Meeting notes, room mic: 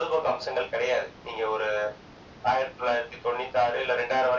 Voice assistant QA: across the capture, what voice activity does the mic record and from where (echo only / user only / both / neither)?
echo only